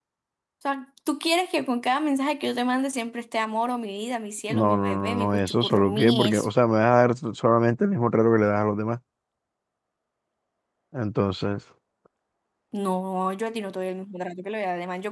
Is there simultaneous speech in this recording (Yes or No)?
Yes